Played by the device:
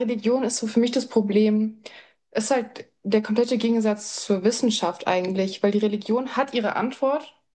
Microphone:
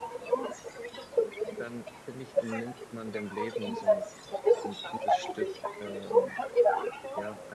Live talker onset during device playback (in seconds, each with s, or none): 1.6 s